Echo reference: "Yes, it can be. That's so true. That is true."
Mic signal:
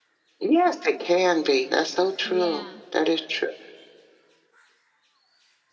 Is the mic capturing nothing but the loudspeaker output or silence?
No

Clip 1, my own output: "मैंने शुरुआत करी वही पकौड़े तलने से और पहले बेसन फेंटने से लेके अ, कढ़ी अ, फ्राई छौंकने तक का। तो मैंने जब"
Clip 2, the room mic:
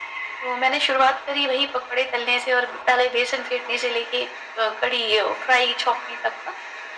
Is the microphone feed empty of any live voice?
Yes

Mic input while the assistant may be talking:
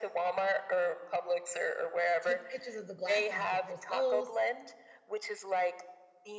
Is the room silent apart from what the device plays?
No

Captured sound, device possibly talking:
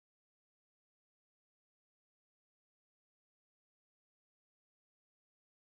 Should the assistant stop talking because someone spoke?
No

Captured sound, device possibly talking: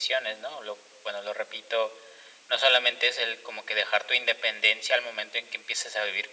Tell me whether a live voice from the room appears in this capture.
No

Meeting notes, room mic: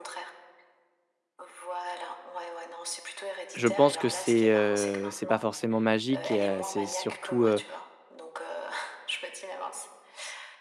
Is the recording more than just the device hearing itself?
Yes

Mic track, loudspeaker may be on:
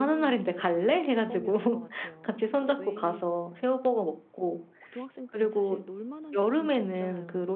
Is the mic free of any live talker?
No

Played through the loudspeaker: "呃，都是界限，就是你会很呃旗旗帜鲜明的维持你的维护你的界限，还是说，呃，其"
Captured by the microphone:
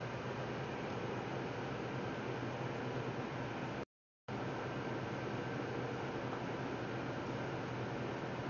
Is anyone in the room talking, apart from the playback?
No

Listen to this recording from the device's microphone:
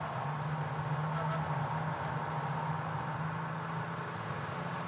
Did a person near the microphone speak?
No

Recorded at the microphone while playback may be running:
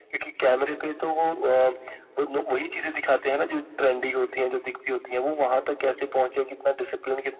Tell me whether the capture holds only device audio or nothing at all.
Yes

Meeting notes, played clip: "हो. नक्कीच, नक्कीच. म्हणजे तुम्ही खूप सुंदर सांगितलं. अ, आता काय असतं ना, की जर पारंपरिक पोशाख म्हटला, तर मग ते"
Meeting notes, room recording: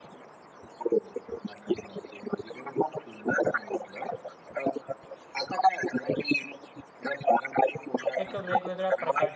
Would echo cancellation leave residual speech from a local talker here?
Yes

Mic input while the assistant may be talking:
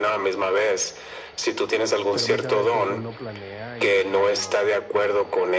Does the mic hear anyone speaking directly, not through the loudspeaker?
Yes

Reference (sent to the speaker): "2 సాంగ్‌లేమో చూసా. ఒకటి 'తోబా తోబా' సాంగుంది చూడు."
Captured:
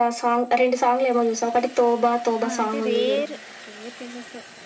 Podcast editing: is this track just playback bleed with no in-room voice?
No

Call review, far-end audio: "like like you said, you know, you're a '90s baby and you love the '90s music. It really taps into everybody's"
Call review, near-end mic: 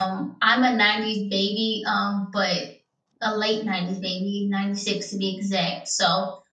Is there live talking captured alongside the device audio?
Yes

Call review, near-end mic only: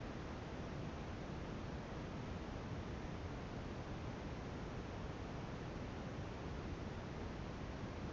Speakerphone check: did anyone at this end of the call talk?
No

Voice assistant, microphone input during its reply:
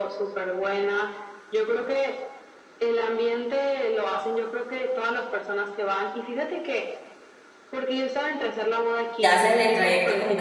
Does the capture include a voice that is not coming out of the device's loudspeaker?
Yes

